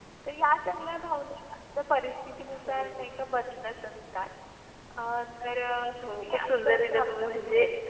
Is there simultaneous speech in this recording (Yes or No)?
Yes